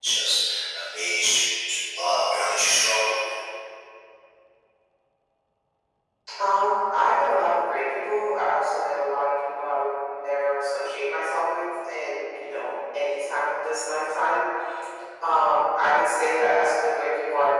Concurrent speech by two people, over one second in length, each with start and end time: none

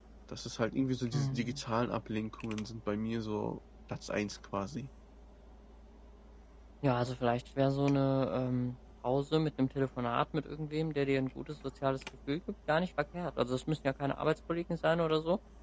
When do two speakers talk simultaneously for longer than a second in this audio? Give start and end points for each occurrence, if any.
none

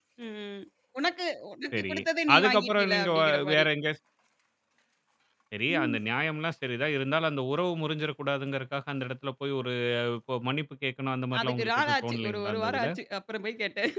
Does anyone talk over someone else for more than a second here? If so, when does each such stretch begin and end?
2.4-3.7, 11.4-12.9

